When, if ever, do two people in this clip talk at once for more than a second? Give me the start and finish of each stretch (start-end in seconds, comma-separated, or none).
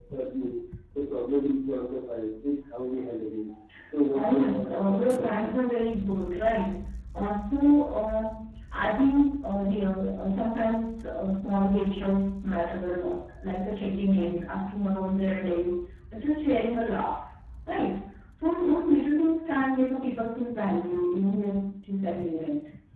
4.1-5.6